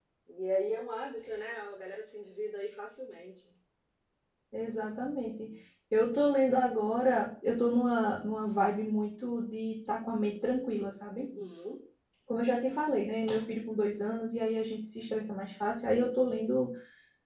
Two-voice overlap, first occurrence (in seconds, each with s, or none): none